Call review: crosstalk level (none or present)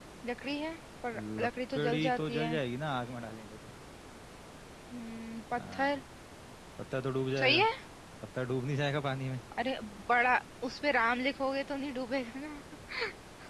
present